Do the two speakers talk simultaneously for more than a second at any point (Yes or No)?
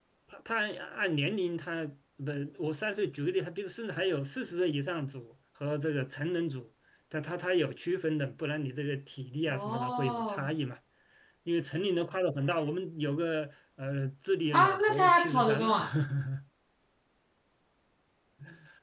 Yes